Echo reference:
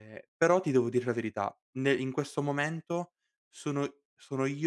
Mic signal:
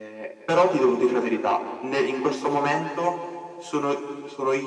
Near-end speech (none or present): none